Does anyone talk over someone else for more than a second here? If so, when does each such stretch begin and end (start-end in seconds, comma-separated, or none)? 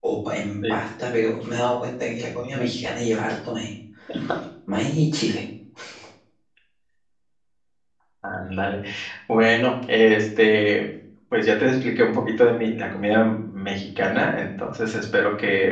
none